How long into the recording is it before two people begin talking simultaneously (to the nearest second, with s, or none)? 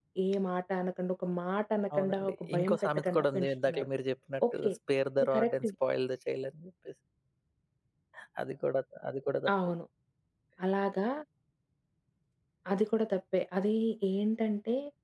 2 s